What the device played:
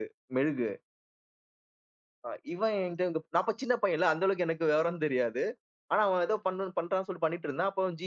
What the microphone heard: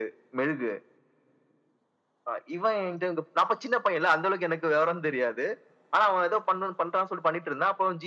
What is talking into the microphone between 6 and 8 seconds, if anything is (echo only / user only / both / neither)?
echo only